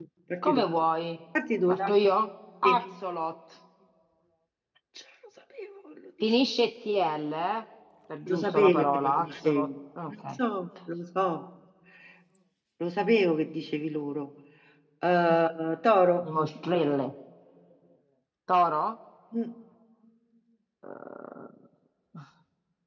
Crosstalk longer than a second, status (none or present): present